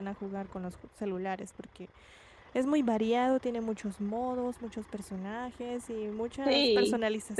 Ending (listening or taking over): taking over